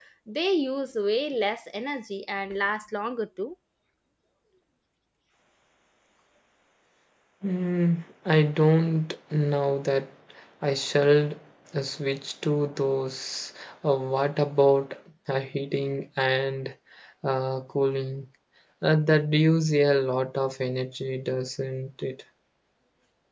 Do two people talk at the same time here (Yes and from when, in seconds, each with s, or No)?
No